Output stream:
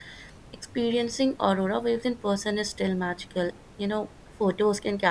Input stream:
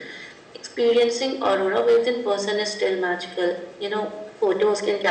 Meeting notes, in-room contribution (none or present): none